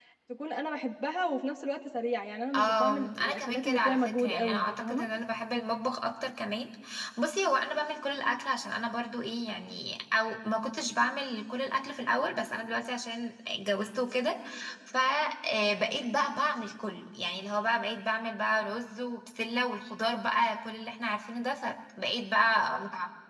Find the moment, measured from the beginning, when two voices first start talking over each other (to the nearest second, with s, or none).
3 s